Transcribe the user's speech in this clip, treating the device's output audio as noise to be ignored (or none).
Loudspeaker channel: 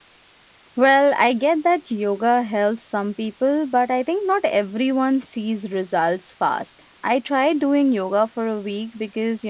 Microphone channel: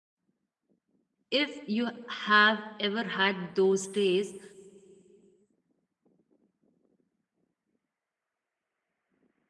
If you have ever had those days